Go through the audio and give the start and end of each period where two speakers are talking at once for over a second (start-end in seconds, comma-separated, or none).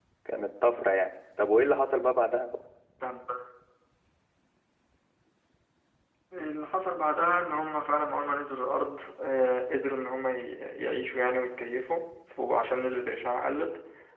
none